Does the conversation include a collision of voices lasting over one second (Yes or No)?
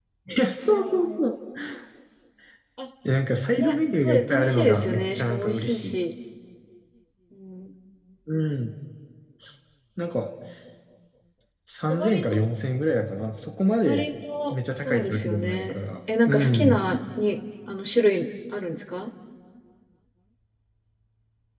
Yes